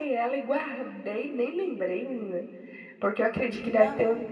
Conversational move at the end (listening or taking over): listening